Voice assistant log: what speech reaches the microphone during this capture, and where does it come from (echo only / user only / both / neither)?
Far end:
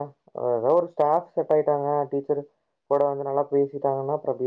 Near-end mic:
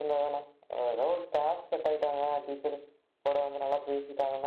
echo only